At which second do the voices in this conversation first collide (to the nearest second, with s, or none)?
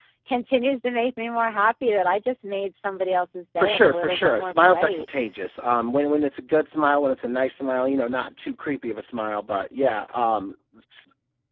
4 s